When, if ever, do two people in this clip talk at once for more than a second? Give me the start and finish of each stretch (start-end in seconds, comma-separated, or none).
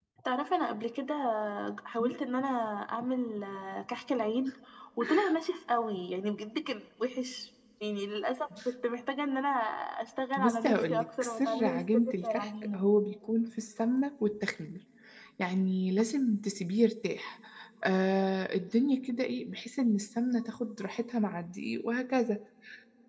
10.4-12.8